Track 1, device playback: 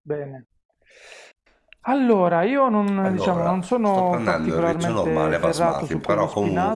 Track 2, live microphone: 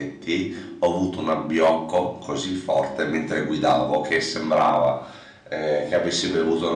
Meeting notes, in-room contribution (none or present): present